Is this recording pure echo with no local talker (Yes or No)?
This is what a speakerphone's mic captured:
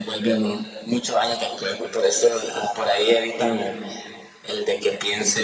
Yes